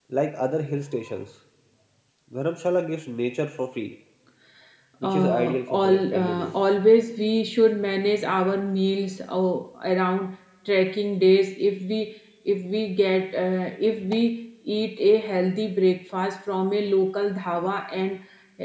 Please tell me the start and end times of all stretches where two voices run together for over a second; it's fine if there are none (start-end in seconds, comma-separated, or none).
5.0-6.5